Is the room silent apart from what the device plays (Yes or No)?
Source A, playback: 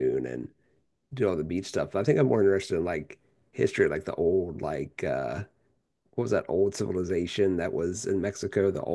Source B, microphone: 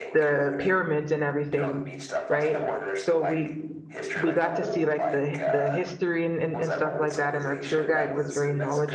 No